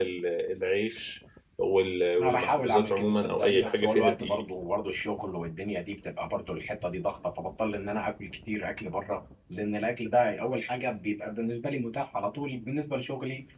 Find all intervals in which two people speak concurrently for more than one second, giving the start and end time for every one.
2.2-4.4

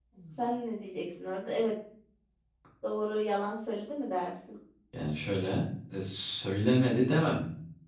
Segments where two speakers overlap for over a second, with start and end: none

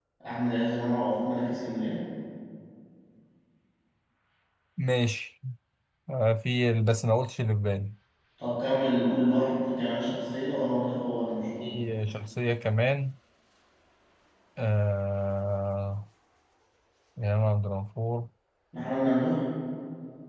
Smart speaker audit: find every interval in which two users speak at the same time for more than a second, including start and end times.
none

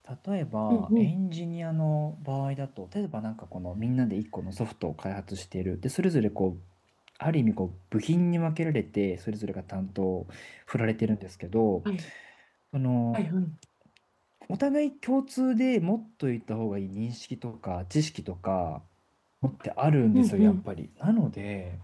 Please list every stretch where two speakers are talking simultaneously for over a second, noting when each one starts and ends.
none

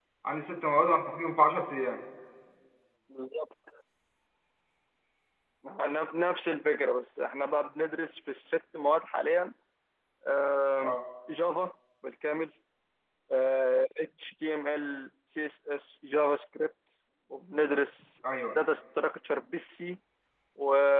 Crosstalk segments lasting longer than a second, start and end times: none

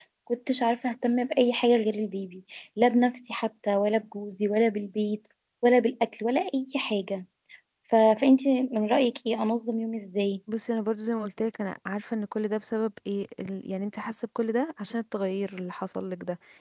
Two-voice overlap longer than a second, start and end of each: none

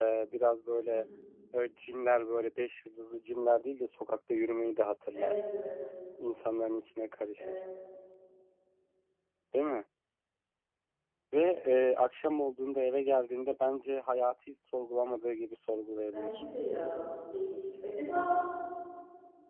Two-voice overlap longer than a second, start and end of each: none

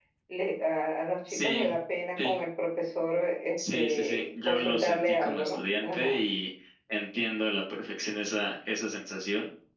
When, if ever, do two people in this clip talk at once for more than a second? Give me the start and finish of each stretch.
3.6-6.2

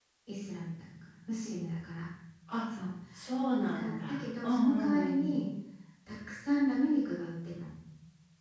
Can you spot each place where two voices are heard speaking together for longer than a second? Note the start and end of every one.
3.6-5.3

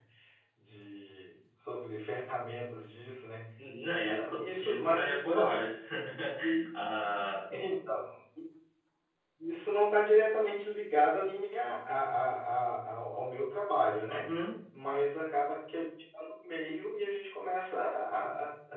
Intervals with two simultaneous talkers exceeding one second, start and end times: 4.0-5.7

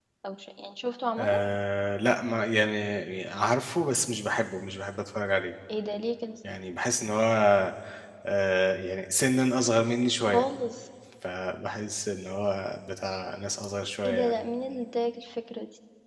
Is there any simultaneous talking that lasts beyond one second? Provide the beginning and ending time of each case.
none

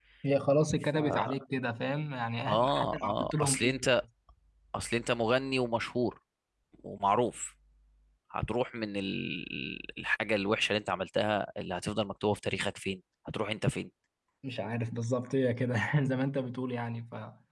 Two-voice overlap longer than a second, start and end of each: 2.5-3.8

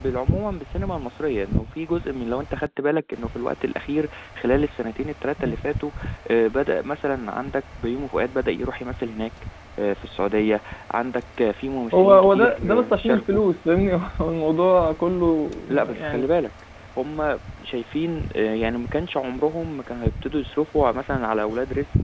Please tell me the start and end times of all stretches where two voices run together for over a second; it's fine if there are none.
11.9-13.4

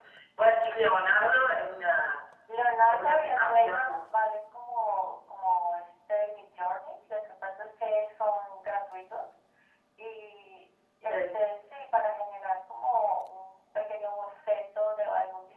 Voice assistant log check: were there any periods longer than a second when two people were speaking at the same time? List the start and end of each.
2.9-4.1

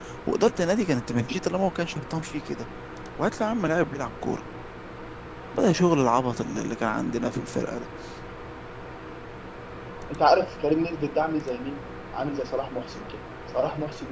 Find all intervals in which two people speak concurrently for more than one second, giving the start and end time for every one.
none

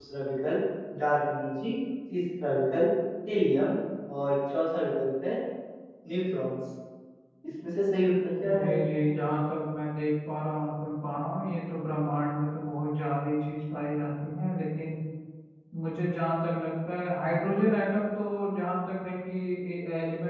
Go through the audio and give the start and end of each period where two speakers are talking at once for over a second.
none

